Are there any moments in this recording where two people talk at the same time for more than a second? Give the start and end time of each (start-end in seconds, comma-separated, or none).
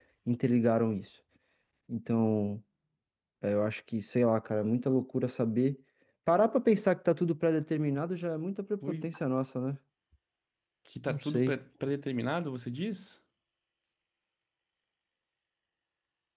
none